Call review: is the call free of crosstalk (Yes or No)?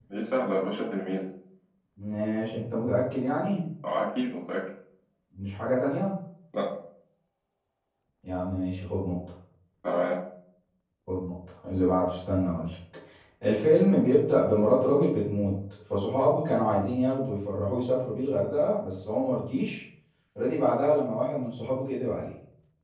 Yes